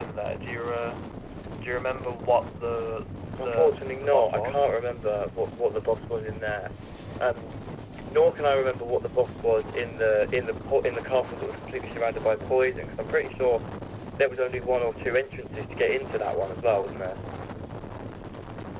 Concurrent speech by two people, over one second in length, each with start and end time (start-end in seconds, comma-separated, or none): 3.4-4.7